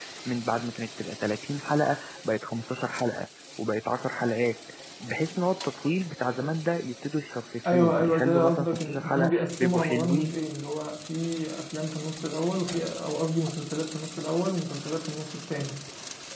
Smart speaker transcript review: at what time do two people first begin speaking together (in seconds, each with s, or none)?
7.6 s